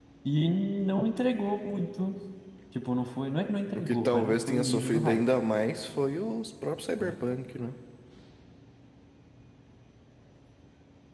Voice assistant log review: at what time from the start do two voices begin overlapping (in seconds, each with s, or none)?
3.8 s